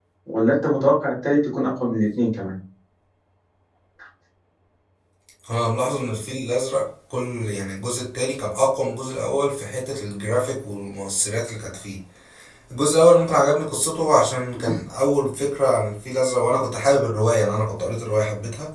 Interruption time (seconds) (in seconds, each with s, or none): none